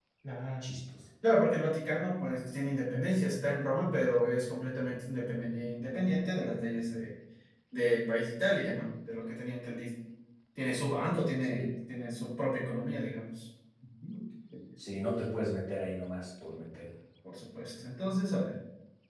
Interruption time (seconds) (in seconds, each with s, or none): none